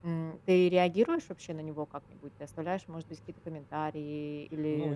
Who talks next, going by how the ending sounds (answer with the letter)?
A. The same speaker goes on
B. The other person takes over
B